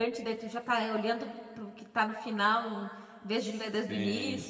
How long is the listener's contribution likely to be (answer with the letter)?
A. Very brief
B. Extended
B